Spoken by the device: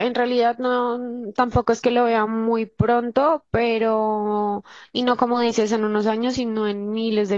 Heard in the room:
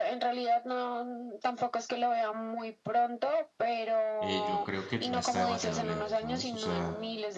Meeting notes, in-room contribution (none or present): present